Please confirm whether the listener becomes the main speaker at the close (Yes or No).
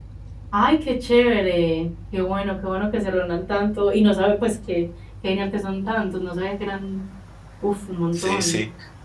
Yes